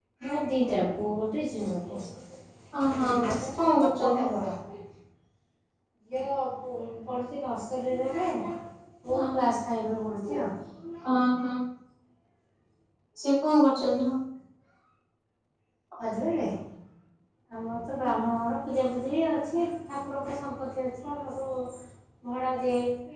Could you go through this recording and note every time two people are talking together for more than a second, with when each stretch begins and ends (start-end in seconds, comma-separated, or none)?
2.7-4.2